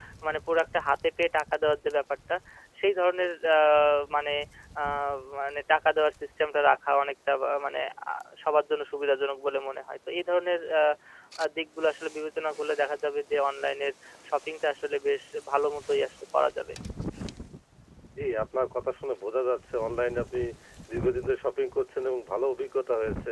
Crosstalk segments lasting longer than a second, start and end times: none

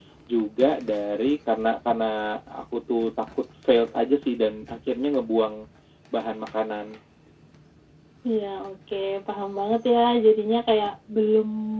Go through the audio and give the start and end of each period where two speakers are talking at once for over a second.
none

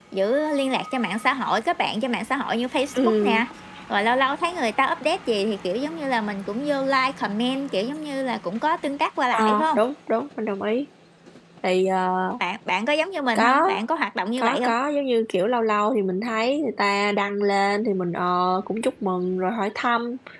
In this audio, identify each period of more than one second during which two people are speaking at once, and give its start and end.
none

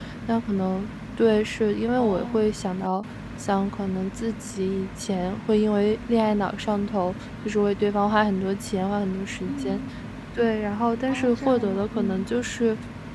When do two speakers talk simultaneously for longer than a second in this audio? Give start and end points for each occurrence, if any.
11.1-12.3

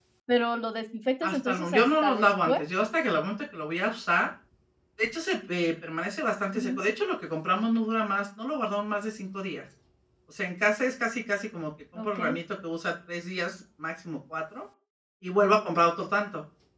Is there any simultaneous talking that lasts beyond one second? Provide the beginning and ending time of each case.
1.2-2.6

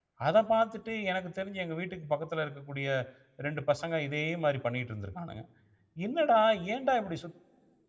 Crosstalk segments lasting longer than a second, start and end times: none

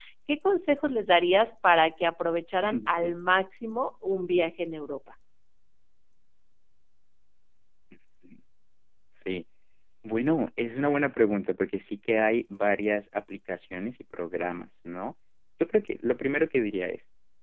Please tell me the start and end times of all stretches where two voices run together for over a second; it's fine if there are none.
none

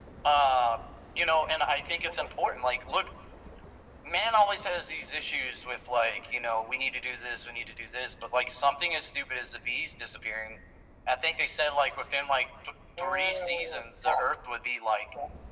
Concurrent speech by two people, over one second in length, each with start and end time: 13.0-14.2

